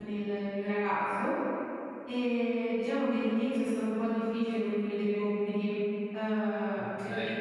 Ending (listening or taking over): taking over